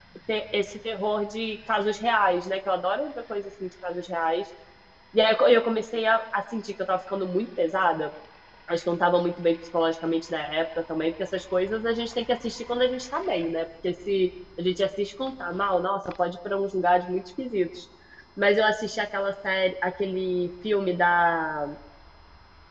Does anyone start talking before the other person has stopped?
No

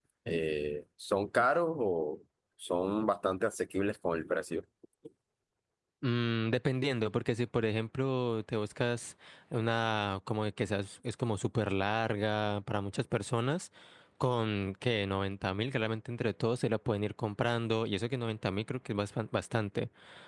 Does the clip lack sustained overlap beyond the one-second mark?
Yes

